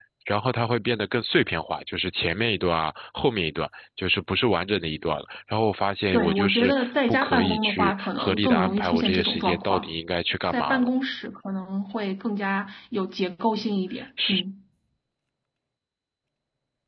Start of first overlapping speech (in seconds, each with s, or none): 6.1 s